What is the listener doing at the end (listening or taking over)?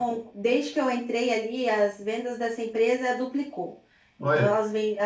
listening